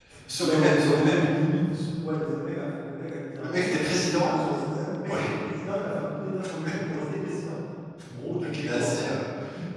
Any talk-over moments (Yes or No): Yes